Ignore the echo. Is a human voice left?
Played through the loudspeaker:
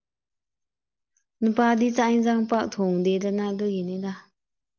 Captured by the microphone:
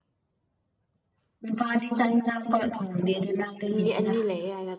Yes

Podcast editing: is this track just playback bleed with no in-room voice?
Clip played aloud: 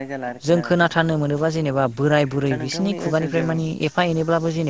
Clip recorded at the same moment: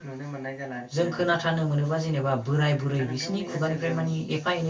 Yes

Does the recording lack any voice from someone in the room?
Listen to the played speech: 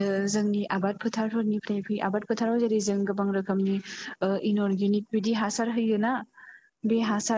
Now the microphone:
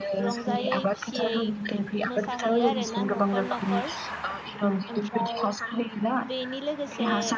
No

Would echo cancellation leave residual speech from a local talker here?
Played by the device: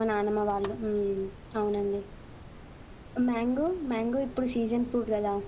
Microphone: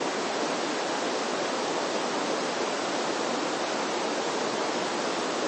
No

